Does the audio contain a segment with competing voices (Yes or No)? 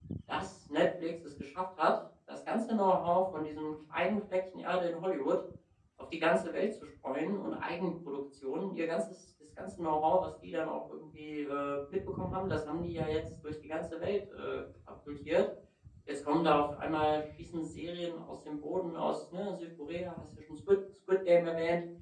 No